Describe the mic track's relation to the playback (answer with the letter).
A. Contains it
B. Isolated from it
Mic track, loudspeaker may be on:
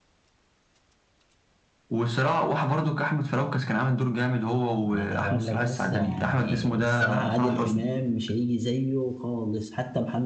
A